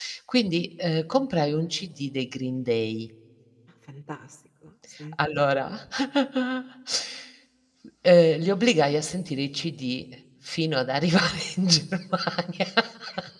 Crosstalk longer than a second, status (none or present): none